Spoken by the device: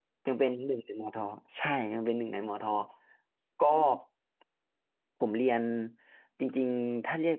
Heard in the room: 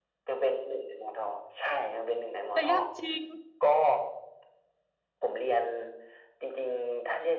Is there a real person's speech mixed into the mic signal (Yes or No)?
Yes